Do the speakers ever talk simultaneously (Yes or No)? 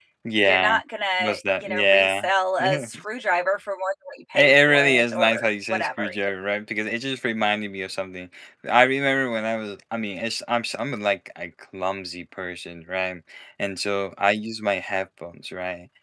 Yes